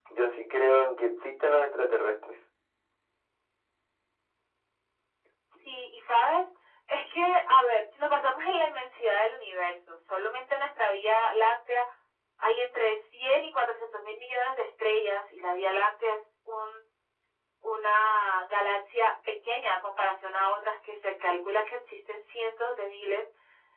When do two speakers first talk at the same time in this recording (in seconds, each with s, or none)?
none